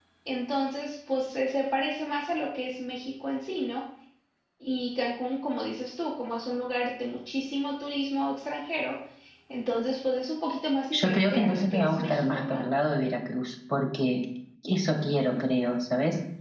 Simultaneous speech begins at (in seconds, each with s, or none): 10.9 s